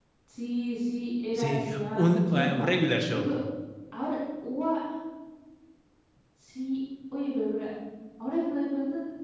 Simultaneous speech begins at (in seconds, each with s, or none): 1.4 s